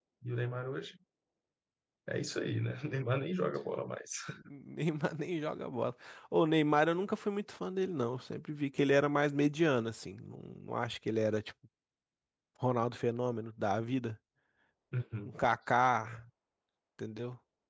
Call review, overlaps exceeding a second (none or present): none